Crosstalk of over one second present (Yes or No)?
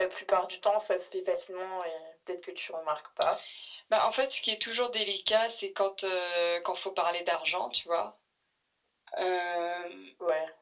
No